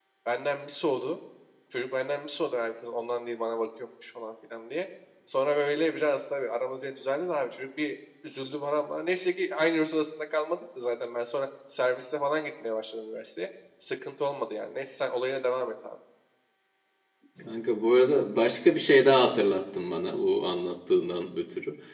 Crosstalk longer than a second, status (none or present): none